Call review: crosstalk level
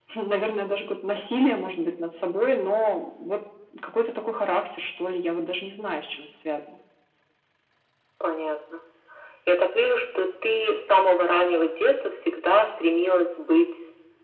none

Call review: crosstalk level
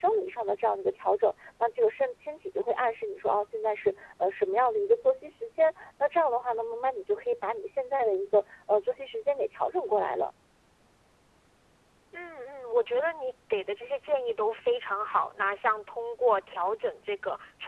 none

